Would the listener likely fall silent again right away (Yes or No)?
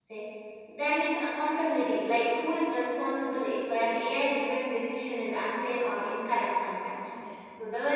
Yes